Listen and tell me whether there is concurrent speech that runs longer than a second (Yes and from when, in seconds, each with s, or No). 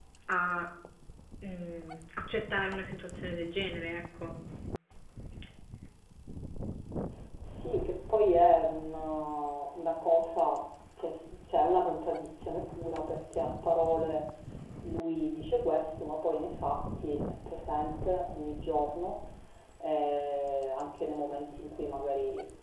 No